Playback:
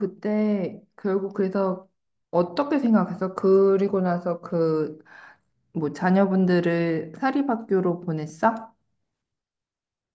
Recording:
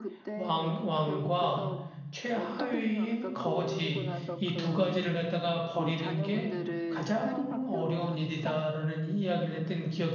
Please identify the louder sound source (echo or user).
user